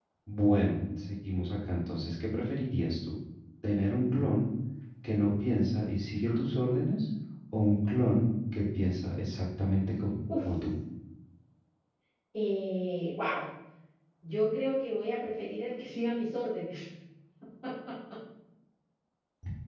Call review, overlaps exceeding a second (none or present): none